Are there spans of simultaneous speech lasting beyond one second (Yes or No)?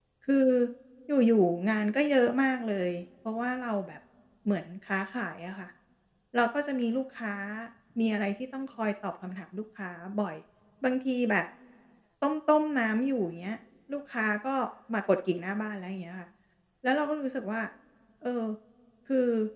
No